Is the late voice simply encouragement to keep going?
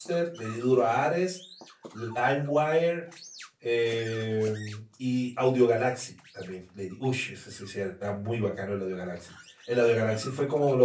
Yes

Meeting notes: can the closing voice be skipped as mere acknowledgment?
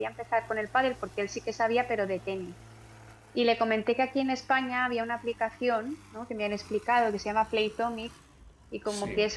Yes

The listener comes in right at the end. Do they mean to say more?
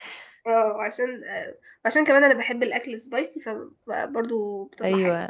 Yes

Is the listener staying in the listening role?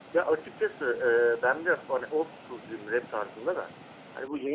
Yes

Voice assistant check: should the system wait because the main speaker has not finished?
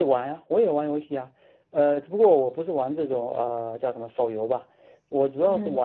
Yes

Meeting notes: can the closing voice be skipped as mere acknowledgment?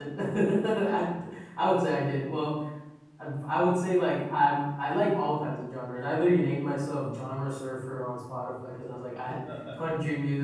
Yes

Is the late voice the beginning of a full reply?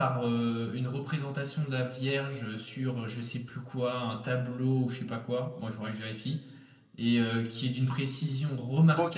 Yes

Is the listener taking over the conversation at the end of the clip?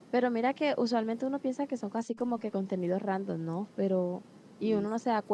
No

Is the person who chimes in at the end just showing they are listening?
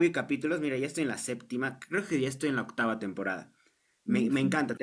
Yes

